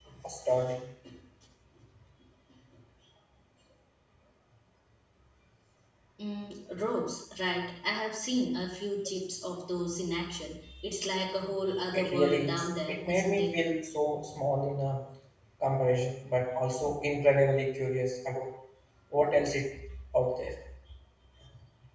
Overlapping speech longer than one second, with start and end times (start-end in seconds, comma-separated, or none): 11.9-13.6